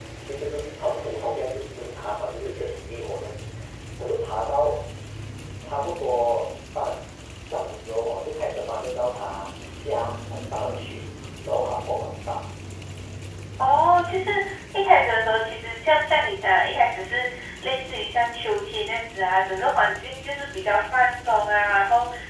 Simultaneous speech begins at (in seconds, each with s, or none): none